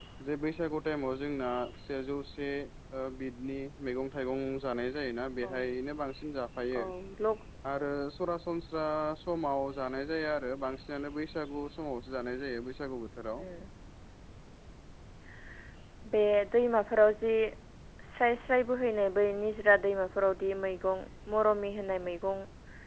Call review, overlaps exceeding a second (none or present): none